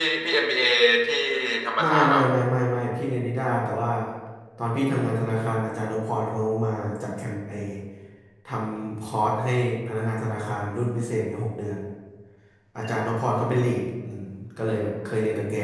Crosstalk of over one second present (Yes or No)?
No